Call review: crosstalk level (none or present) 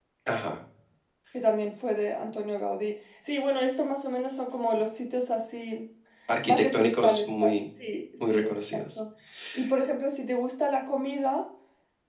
present